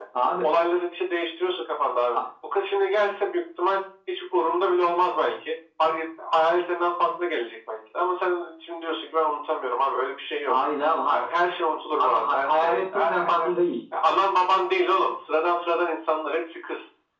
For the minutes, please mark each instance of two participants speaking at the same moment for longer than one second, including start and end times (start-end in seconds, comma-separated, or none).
12.0-13.5